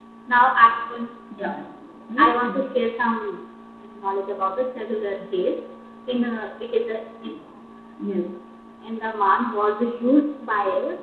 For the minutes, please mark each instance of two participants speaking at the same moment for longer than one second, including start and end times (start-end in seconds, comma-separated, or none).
none